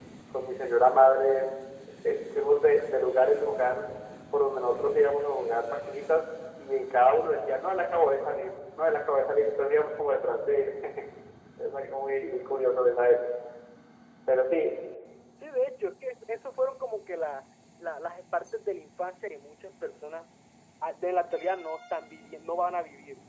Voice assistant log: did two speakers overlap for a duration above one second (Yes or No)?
No